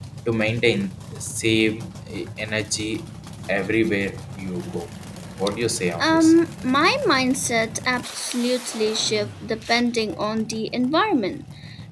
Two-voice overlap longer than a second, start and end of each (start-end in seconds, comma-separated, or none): none